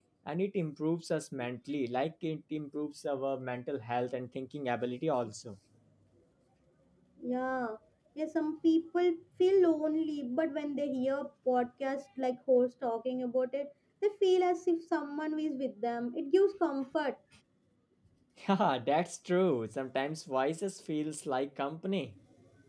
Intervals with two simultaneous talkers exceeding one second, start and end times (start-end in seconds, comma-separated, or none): none